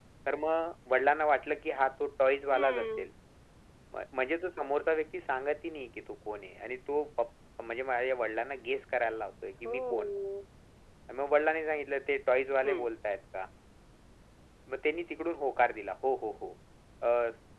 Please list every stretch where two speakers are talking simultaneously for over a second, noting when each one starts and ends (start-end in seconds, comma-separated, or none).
none